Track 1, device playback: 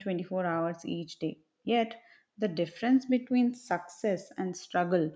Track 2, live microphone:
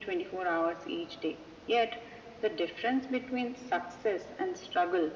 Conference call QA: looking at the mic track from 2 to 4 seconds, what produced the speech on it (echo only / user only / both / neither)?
echo only